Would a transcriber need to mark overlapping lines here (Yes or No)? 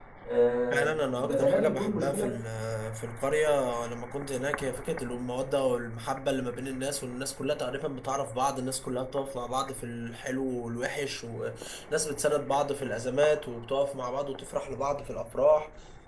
Yes